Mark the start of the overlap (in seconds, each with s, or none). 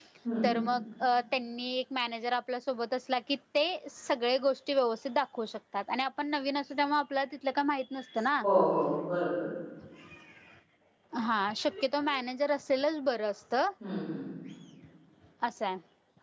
none